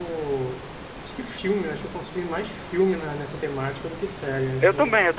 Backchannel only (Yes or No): No